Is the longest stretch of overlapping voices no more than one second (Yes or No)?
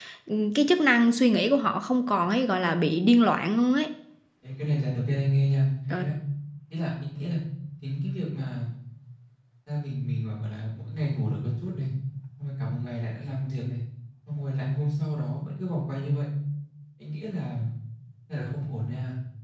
Yes